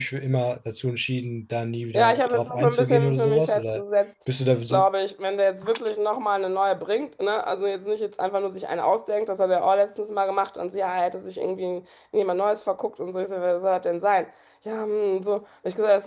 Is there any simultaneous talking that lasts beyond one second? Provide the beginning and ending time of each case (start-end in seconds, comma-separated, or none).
2.0-3.8